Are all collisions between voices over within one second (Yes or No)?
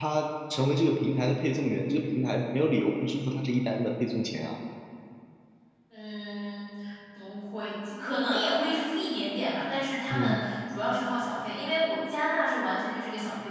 Yes